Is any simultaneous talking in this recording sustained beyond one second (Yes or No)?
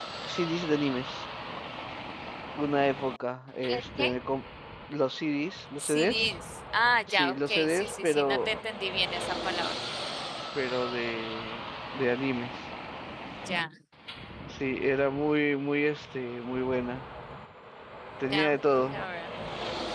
Yes